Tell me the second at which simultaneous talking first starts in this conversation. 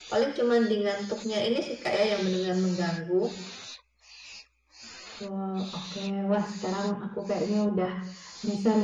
none

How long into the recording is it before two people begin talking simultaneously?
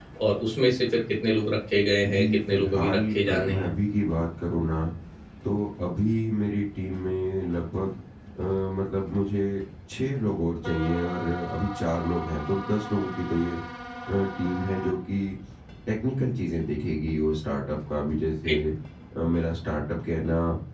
2.0 s

